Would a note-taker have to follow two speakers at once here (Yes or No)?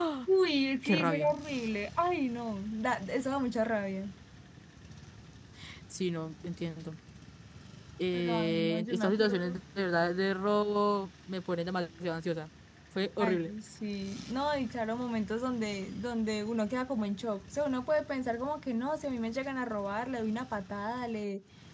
Yes